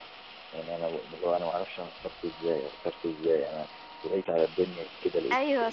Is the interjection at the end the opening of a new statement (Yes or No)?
Yes